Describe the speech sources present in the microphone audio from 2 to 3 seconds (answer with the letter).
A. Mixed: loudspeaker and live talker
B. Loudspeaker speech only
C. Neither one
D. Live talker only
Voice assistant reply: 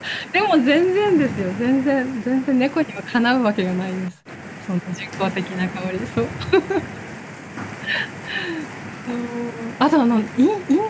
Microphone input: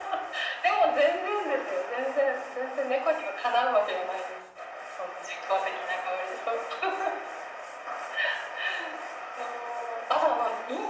B